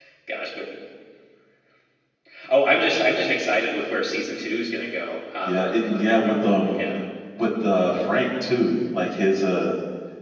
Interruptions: present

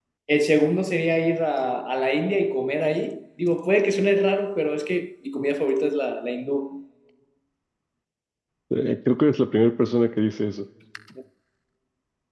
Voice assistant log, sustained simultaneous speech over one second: none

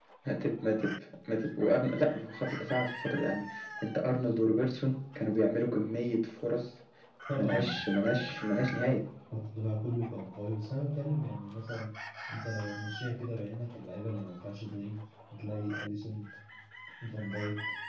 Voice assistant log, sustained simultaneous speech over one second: present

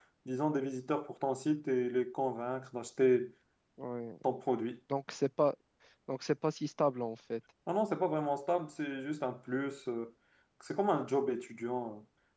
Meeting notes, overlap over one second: none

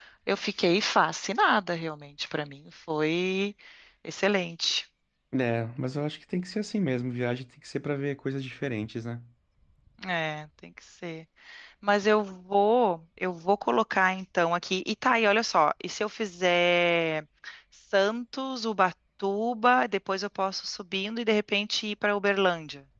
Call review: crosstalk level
none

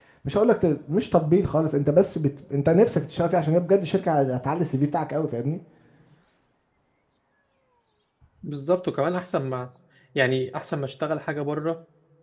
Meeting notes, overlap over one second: none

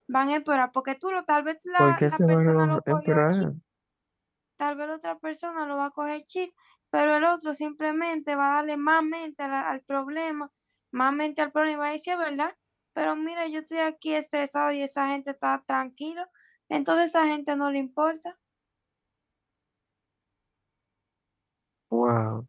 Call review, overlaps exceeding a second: present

